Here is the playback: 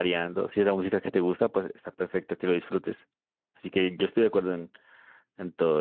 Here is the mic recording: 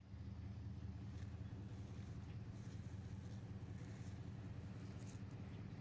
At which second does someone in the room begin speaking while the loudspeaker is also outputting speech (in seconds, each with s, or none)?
none